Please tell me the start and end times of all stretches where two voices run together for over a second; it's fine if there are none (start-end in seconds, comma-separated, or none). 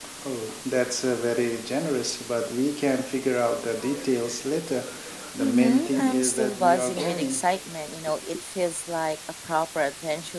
5.4-7.4